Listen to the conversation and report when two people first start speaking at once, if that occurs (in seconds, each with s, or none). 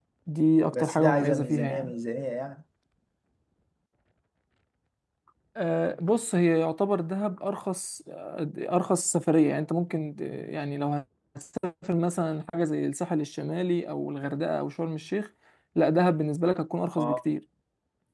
0.7 s